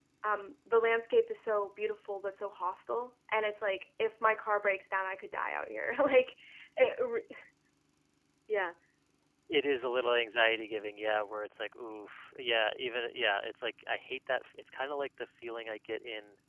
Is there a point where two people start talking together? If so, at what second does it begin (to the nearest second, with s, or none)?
none